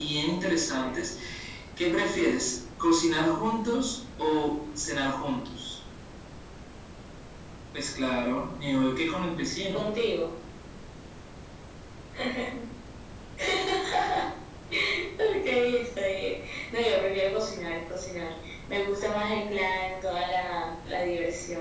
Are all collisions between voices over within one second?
Yes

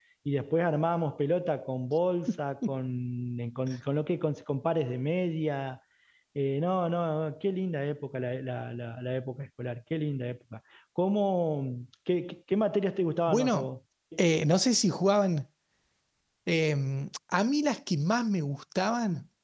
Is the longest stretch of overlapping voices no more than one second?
Yes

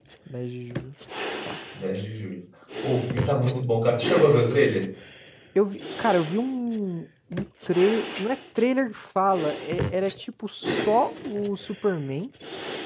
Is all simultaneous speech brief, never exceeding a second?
Yes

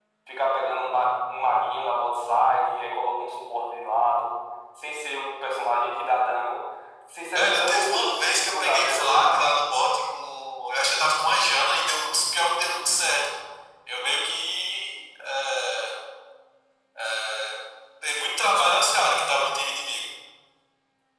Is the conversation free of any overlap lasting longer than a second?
No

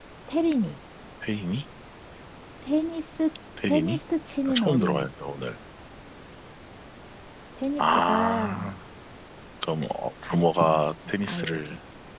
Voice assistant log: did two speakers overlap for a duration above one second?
Yes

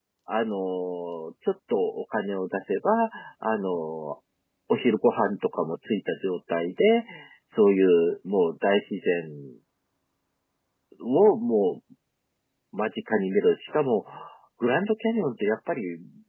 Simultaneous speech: No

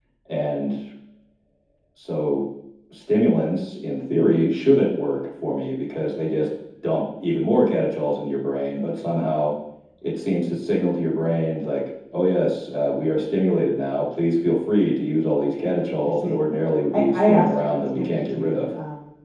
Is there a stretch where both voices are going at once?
Yes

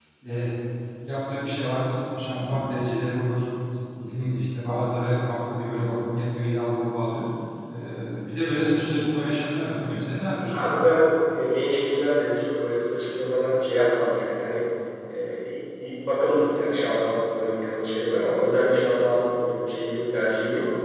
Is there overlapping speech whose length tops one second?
No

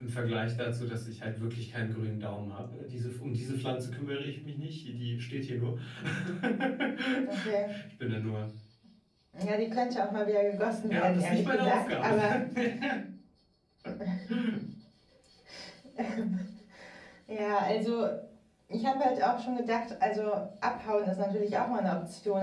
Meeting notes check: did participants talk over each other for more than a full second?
Yes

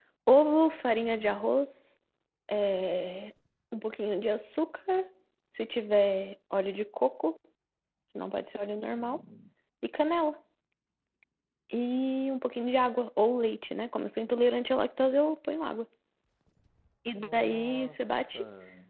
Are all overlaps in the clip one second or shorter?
No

